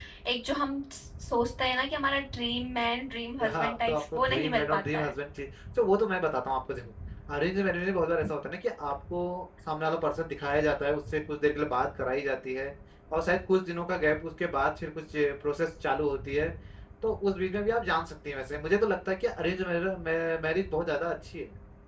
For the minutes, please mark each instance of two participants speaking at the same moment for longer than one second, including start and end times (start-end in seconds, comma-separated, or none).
3.5-5.1